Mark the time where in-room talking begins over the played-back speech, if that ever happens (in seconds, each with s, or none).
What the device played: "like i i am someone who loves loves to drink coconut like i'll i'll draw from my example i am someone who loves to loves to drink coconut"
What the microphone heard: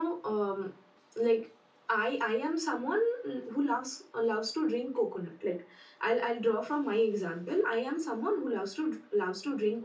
none